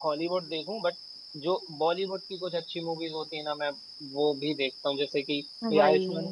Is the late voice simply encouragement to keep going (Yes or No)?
Yes